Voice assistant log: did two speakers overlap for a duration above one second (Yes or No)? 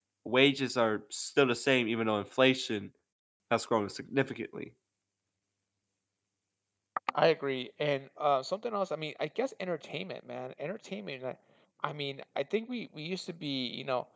No